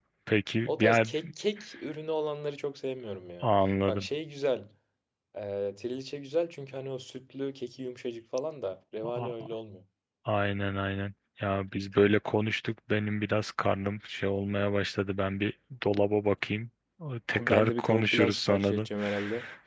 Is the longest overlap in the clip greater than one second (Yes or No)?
Yes